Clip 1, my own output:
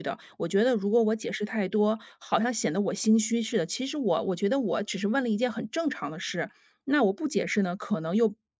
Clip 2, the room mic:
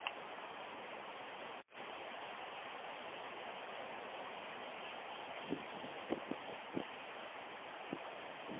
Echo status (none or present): none